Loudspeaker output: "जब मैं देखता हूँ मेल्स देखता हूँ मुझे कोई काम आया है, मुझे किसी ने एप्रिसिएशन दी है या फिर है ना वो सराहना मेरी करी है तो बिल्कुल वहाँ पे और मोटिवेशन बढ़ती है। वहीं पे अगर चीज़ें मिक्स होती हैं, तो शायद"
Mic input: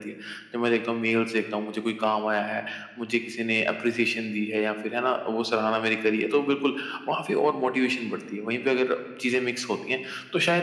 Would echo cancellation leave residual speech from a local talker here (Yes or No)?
No